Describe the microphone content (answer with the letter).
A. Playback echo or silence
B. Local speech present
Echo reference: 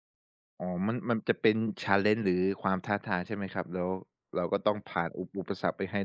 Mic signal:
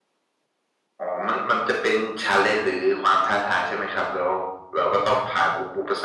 A